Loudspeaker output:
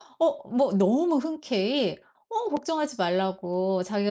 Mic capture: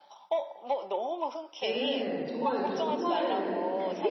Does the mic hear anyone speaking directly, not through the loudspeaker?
Yes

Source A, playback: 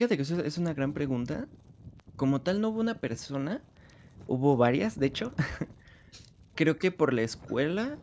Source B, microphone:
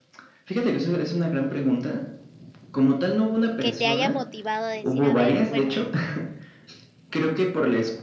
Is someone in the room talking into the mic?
Yes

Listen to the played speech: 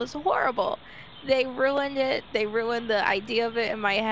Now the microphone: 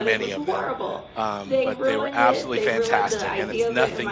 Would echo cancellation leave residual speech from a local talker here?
Yes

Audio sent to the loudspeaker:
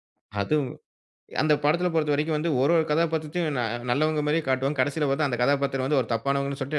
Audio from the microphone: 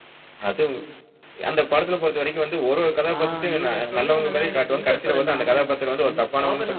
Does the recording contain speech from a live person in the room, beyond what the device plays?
Yes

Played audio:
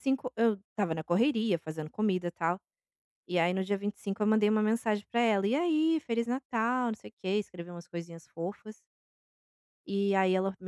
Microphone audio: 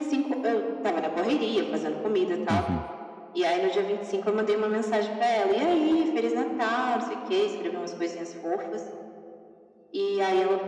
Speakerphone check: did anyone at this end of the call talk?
Yes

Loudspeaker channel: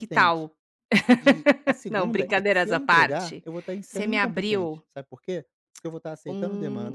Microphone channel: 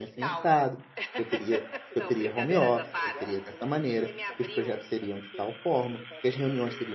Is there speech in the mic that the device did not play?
Yes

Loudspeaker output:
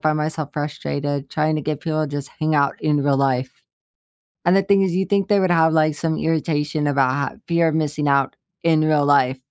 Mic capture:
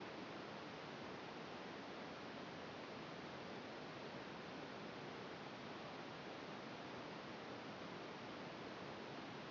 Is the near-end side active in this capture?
No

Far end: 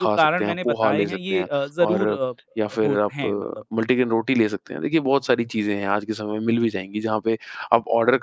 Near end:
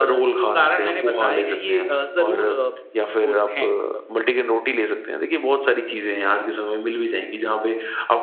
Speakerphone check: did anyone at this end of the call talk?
No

